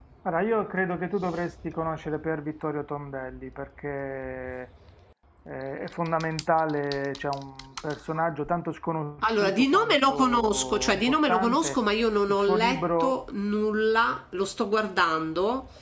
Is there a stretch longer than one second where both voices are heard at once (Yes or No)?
Yes